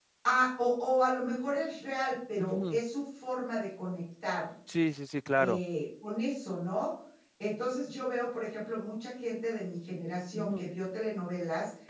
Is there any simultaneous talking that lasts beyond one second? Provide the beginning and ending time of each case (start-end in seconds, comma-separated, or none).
none